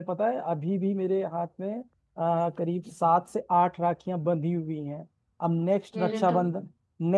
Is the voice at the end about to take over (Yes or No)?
No